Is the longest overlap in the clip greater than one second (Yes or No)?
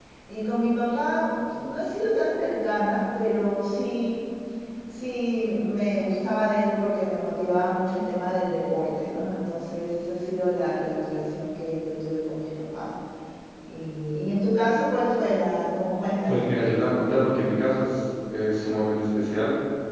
No